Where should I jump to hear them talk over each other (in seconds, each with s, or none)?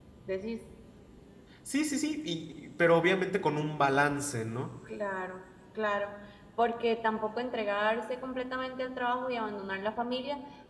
none